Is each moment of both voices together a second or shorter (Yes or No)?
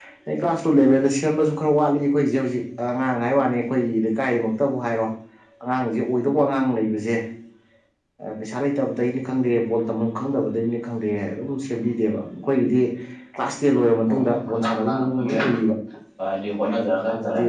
No